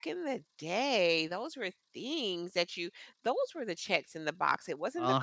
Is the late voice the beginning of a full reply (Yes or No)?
No